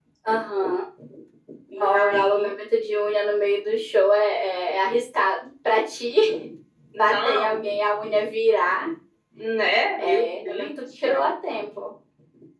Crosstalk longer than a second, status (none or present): present